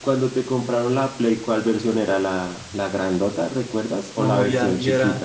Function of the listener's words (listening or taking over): taking over